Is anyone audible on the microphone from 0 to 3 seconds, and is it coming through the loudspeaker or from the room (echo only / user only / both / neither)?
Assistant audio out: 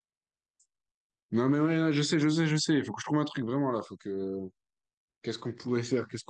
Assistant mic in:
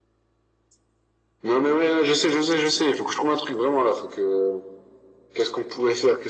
echo only